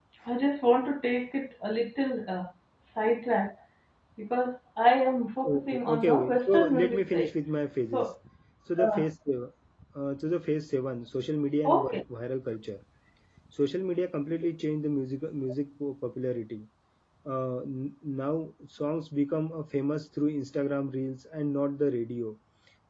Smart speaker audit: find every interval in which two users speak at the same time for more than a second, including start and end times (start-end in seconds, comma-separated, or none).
5.5-7.3